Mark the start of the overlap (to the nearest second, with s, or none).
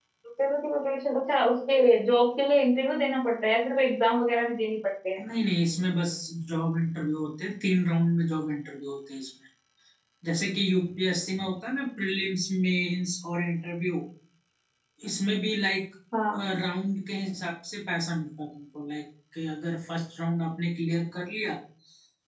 none